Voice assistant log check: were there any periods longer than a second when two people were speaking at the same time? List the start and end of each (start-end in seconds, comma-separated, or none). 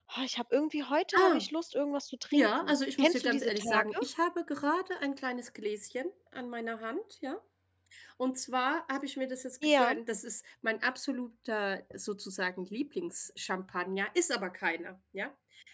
2.3-4.1